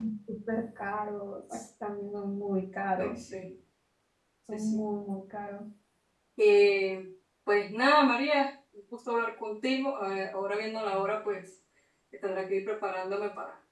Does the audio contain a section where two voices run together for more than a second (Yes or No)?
No